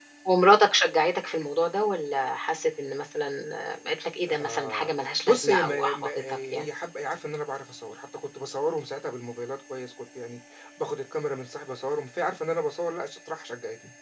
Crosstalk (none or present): present